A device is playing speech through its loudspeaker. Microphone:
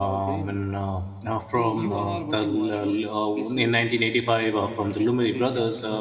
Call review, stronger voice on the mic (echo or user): user